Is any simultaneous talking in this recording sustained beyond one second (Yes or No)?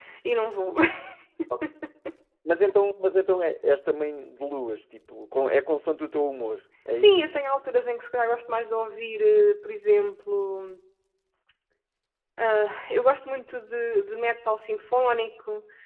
No